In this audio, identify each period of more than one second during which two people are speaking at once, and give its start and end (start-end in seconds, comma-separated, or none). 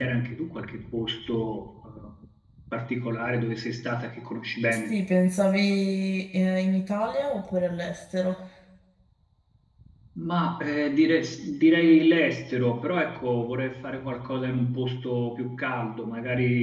none